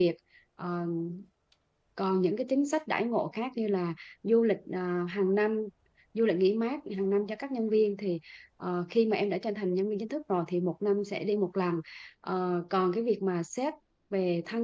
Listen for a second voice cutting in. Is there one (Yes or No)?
No